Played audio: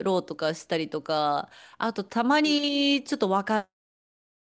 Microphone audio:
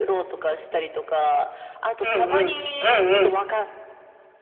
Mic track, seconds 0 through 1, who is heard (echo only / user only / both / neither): echo only